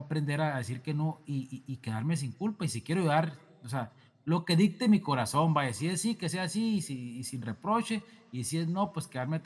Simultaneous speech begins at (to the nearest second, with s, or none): none